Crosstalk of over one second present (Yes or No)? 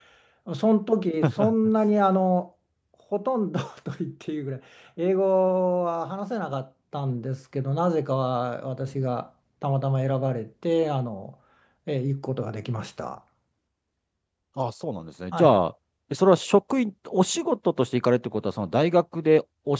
No